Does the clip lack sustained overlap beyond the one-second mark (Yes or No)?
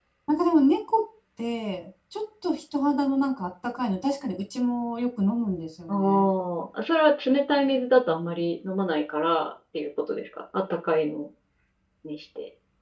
Yes